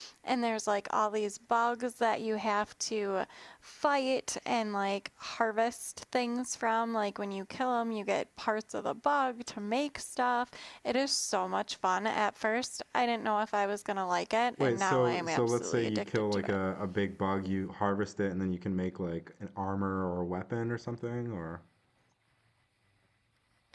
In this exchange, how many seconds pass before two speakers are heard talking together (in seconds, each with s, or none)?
14.6 s